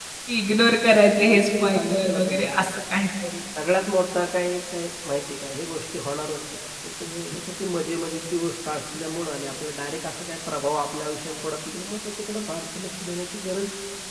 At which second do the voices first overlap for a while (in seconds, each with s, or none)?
1.2 s